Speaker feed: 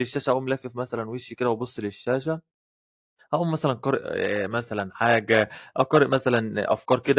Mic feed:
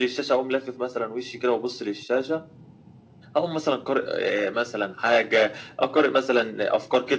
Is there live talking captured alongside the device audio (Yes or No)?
No